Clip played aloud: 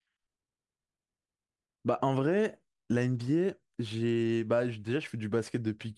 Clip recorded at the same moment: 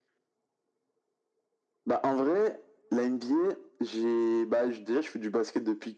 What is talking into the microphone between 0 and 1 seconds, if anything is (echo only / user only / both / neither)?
neither